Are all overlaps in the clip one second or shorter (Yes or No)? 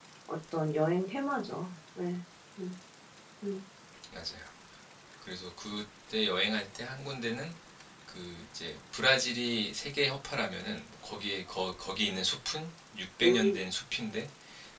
Yes